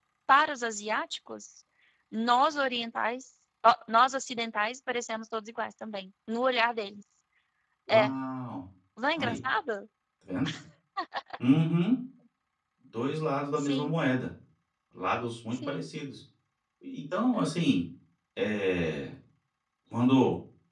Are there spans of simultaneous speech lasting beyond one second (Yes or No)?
No